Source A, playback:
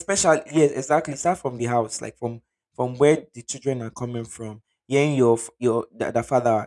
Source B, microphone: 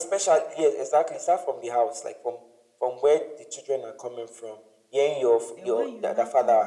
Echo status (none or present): present